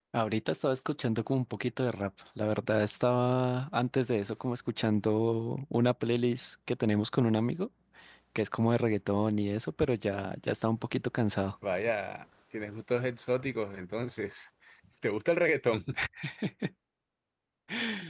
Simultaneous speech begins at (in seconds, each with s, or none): none